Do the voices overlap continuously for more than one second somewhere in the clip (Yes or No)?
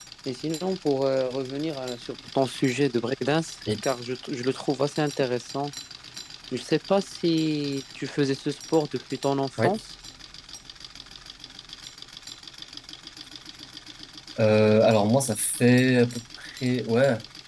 No